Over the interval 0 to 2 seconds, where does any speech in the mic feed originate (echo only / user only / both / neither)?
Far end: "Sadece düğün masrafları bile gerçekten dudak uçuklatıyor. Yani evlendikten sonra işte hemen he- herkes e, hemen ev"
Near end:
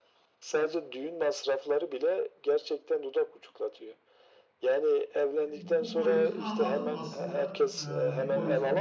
echo only